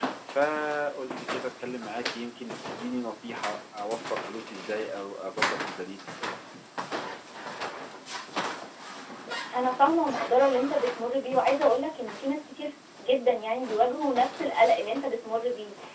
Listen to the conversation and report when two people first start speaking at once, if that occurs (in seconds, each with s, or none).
none